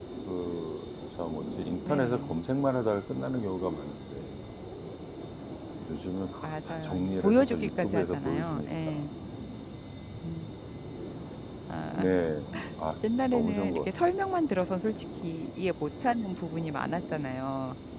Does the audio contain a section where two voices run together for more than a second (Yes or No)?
Yes